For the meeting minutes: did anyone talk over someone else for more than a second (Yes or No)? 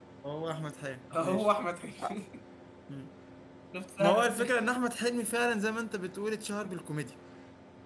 No